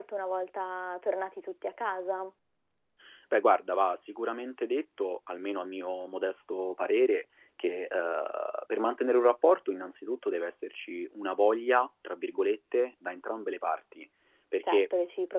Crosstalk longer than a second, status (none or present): none